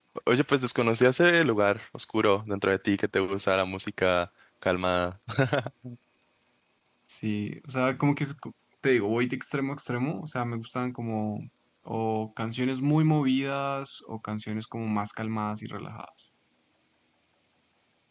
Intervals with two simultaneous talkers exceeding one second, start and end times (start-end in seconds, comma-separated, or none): none